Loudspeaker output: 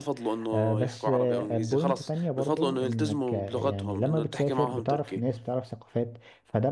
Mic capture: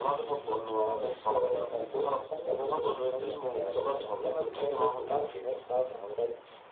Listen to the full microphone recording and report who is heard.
both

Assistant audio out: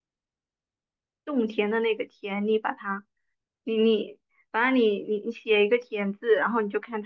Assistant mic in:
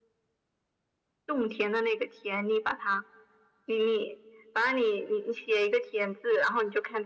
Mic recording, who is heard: echo only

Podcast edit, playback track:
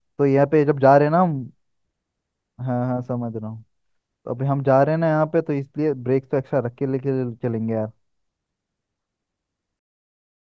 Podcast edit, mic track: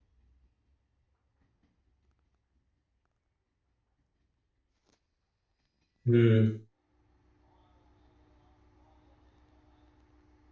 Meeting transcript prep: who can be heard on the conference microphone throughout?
user only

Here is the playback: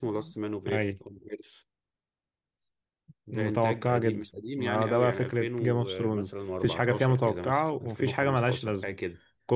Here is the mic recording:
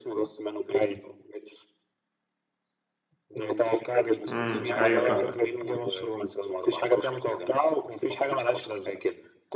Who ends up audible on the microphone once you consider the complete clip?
both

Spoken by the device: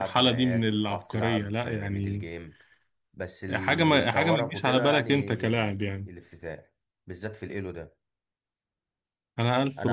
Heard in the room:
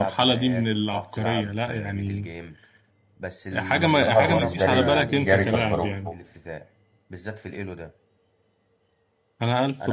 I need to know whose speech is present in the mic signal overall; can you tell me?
both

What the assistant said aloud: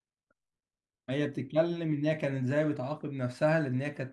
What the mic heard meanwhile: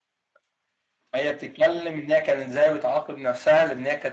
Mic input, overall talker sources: echo only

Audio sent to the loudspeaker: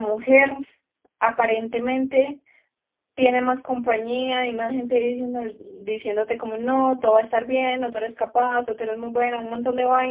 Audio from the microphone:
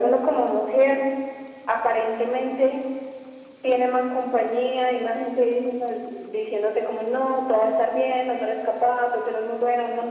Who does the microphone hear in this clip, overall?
echo only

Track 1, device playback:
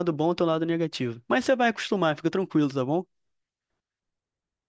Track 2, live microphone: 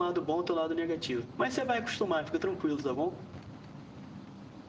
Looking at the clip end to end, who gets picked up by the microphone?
echo only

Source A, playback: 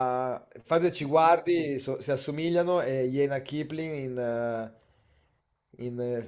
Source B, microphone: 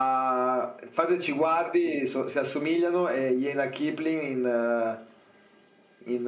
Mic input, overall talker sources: echo only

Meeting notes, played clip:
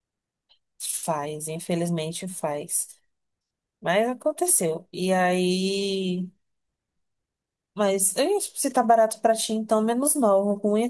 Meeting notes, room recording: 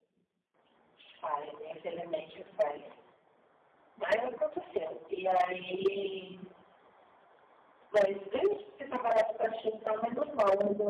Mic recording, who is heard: echo only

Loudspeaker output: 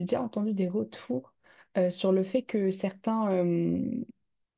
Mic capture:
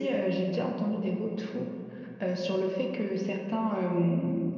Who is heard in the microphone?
echo only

